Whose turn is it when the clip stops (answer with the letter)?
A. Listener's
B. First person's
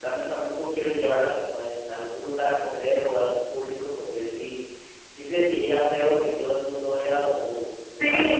A